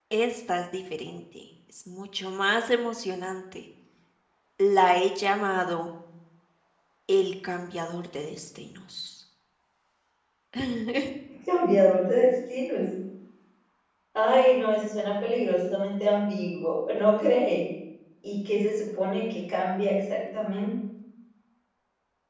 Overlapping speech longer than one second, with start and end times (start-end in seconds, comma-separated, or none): none